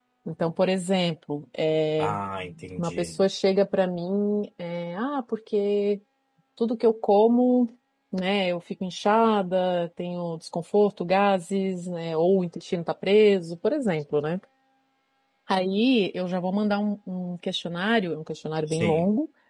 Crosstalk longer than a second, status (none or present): none